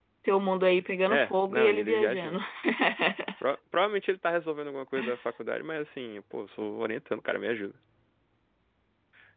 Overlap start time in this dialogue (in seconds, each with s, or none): 1.1 s